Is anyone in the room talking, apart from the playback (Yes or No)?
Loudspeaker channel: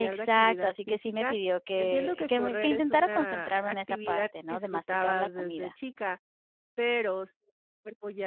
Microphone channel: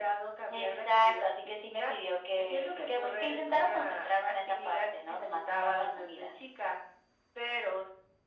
No